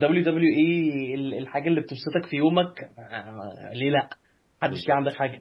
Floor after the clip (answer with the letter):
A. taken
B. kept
A